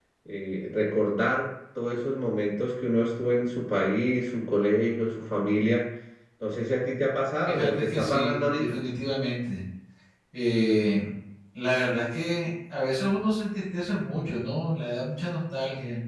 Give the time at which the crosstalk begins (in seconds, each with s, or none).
7.5 s